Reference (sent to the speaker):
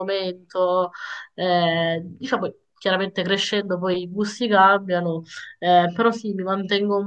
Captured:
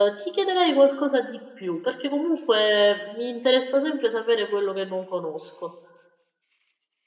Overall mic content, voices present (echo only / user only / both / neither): user only